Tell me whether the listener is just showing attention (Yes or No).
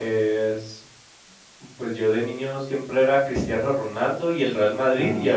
Yes